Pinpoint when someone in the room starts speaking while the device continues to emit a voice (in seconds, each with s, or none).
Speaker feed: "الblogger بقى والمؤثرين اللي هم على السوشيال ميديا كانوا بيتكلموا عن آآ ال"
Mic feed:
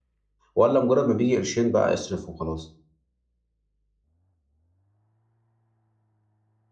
0.5 s